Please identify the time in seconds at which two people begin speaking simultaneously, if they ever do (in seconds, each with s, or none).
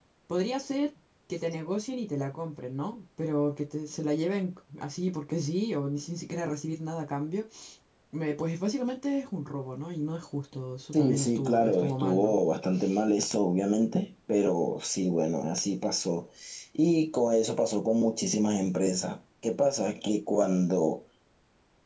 10.9 s